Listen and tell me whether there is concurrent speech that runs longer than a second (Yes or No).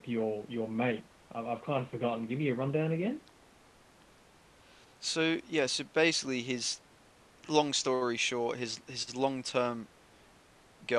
No